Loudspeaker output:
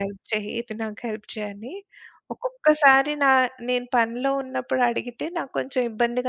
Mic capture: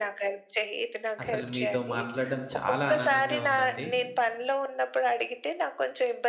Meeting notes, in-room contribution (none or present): present